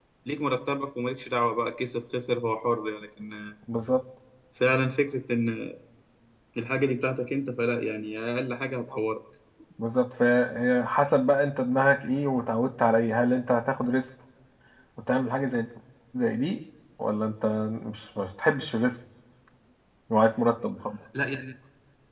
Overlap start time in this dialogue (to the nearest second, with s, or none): none